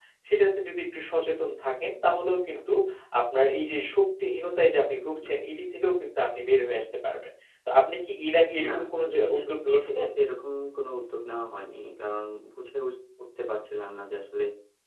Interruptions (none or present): present